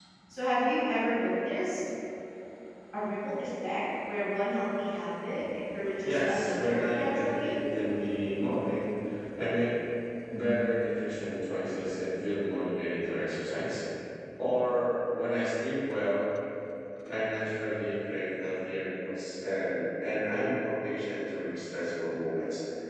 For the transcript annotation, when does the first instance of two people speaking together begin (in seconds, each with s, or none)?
6.0 s